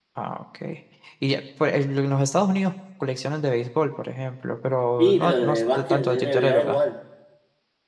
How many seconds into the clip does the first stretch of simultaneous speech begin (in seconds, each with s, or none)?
5.0 s